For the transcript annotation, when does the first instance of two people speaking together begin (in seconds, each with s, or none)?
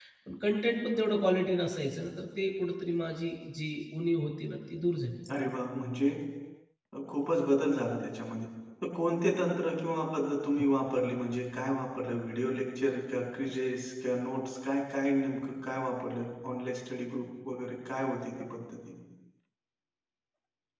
none